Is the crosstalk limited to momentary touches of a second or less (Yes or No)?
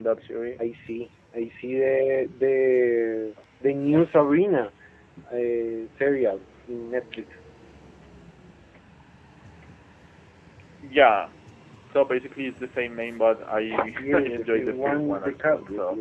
No